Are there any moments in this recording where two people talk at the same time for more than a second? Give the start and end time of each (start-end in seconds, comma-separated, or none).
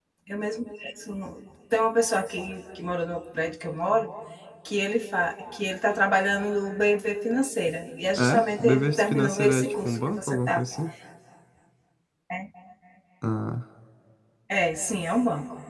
8.1-10.6